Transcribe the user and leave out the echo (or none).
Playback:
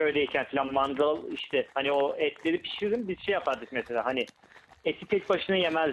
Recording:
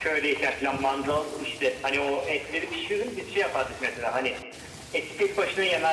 none